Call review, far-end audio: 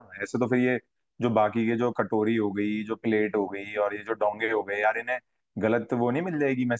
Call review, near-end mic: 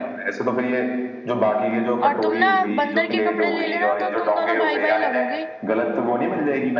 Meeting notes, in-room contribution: present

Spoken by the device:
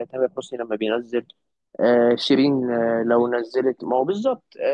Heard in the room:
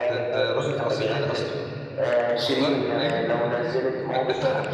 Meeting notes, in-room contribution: present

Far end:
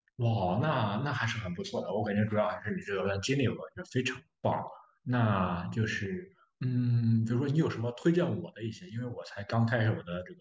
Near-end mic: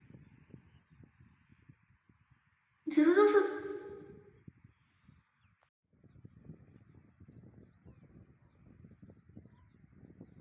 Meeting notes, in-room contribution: present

